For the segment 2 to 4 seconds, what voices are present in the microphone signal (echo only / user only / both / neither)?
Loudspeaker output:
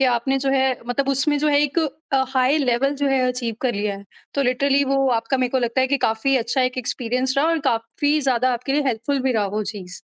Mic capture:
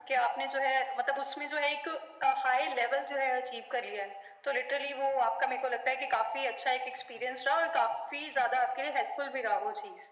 echo only